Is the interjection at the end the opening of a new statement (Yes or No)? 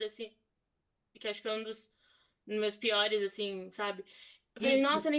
No